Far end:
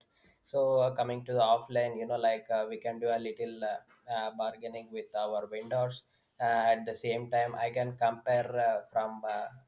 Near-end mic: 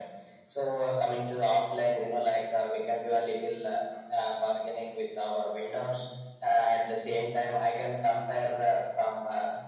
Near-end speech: none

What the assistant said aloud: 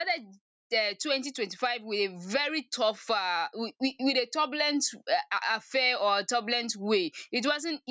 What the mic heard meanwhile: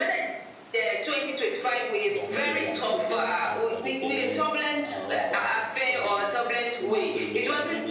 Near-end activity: present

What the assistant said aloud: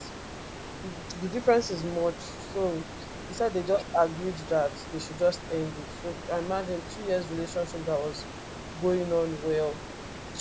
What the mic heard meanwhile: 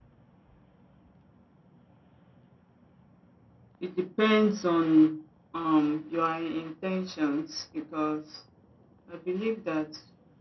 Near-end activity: present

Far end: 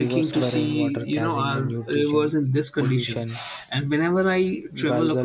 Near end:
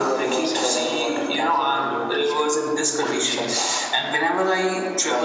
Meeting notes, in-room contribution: none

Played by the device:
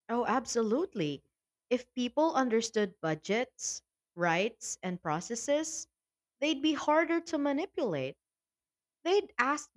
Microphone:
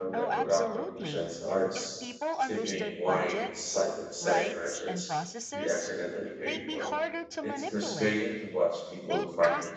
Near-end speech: present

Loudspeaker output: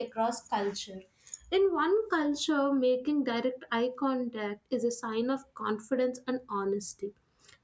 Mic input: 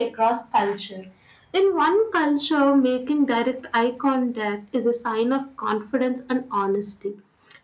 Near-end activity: none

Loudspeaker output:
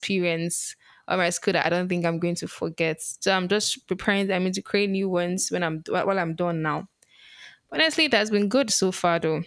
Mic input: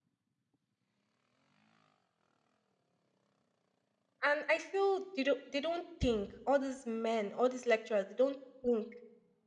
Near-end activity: present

